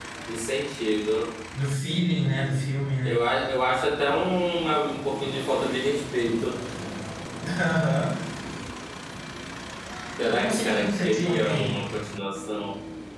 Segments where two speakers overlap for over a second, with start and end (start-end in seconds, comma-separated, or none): 10.2-11.8